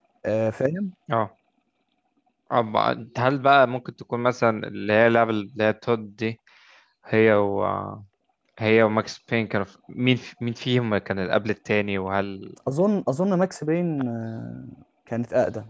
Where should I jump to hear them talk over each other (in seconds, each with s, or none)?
none